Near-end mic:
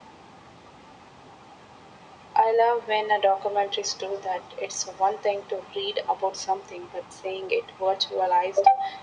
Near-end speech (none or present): none